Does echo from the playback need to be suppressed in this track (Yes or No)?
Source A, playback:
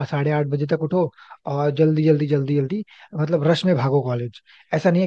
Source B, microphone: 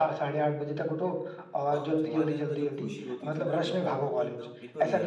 Yes